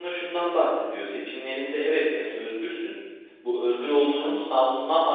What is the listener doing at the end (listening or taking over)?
listening